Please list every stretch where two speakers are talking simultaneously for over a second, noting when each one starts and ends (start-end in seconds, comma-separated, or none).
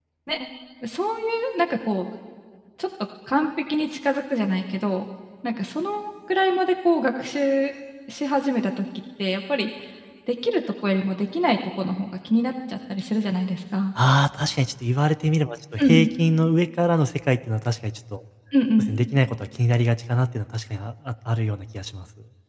none